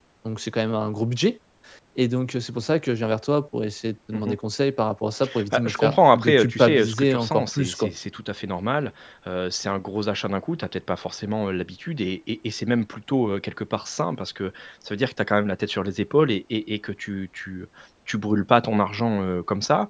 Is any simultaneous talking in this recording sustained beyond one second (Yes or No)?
Yes